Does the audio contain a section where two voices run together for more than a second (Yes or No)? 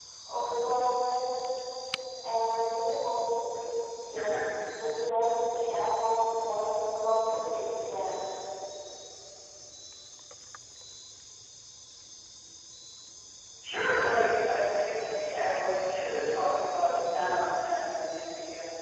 No